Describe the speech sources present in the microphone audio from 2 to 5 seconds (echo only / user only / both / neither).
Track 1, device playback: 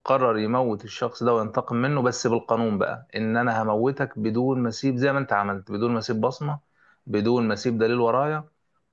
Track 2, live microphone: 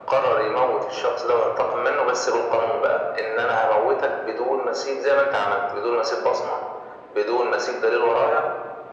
echo only